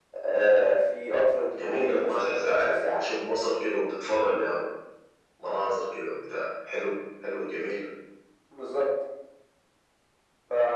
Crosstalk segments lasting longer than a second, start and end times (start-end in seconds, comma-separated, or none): 1.5-3.0